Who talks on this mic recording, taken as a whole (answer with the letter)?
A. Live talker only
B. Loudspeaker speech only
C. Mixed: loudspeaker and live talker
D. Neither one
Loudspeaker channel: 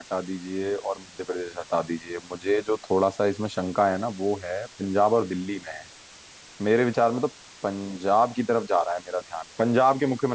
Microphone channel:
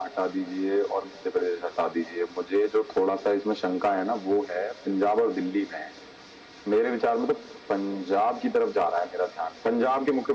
B